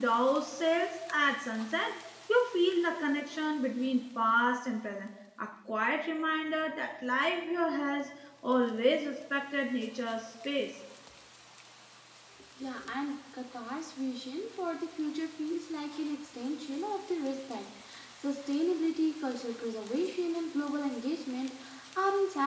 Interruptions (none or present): none